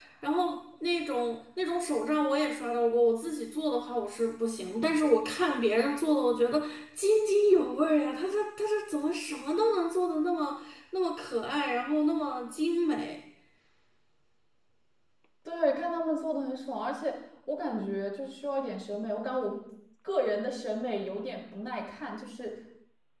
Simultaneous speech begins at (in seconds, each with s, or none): none